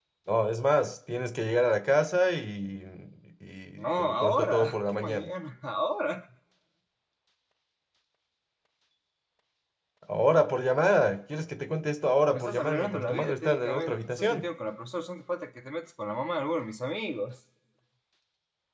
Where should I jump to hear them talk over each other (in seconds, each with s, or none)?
3.8 s